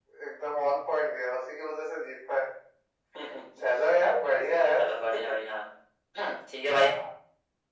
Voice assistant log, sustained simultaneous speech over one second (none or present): none